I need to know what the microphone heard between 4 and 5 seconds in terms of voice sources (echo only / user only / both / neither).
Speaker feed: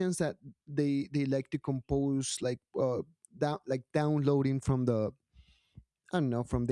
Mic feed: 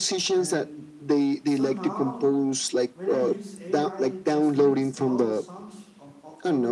both